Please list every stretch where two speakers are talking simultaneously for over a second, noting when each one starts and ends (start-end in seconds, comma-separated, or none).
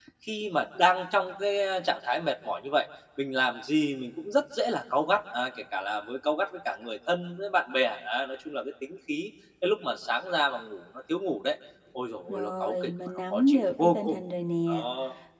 12.3-14.2